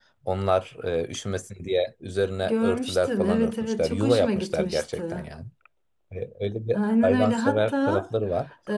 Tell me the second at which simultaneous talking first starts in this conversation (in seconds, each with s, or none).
2.4 s